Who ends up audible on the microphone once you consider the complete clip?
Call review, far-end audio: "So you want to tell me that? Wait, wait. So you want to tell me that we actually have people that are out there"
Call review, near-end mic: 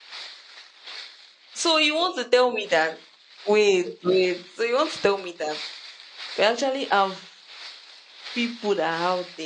echo only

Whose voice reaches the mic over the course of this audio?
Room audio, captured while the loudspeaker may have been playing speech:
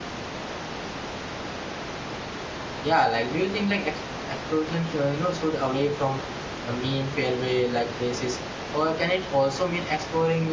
user only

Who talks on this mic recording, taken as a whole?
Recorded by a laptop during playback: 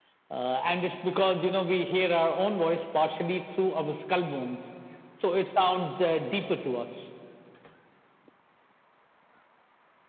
echo only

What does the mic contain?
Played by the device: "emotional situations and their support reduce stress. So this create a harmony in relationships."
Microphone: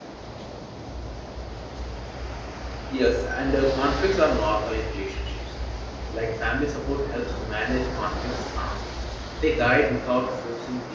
user only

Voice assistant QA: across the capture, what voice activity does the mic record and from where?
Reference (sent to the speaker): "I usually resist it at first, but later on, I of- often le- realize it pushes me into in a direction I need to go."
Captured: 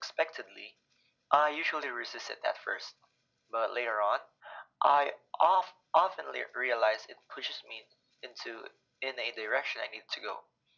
echo only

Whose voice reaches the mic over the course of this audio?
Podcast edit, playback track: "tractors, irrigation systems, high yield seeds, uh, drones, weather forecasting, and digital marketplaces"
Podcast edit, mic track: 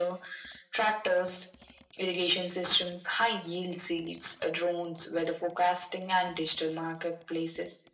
echo only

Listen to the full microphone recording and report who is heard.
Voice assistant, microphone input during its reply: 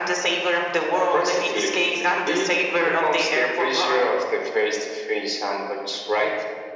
echo only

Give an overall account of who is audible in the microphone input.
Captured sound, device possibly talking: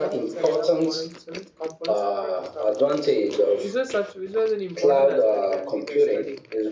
both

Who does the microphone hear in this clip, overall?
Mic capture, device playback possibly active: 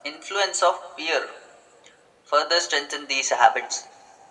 echo only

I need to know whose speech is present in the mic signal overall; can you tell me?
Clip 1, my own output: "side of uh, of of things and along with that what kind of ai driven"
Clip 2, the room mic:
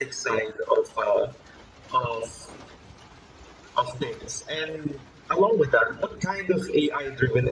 echo only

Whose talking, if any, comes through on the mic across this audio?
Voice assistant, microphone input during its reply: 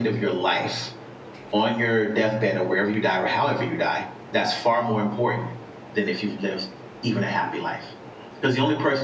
echo only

